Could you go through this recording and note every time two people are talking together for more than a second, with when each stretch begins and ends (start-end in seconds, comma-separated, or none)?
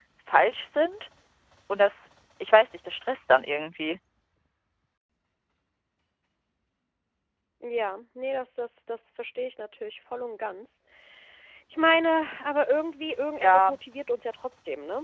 none